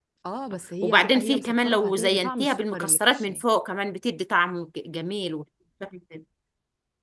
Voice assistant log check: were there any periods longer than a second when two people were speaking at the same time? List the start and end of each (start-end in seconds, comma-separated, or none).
0.8-3.4